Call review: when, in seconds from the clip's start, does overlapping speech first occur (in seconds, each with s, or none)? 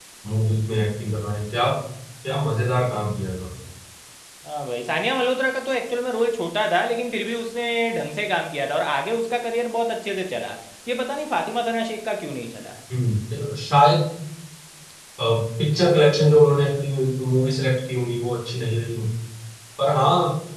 none